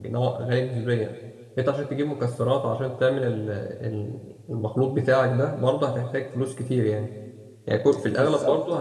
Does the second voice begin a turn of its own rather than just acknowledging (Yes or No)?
No